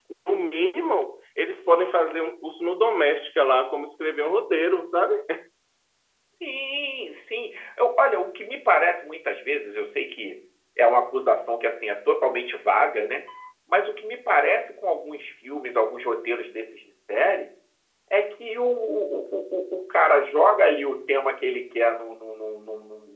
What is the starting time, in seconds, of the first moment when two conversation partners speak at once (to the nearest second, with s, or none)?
none